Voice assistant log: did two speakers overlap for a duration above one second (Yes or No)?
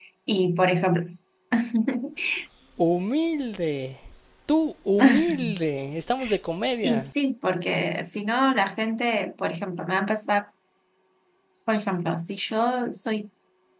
No